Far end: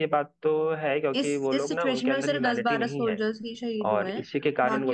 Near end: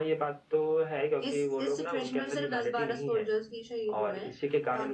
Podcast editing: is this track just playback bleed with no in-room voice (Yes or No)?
Yes